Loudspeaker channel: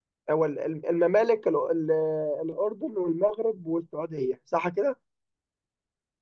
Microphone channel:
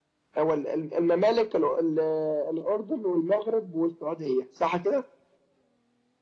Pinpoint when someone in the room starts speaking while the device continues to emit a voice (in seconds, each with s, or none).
none